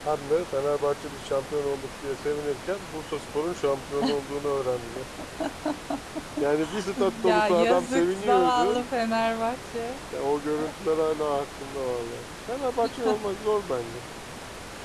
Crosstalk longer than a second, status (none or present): present